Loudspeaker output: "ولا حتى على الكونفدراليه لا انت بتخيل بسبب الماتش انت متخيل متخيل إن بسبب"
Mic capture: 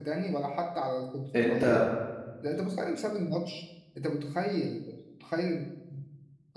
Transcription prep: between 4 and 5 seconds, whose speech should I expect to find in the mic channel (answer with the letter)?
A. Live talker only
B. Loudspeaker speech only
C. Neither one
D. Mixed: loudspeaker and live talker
B